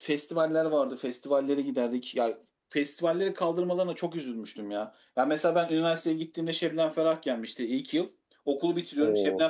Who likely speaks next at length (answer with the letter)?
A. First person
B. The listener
A